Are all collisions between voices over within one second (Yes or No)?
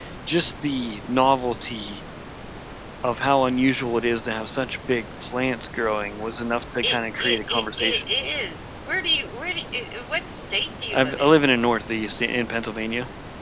No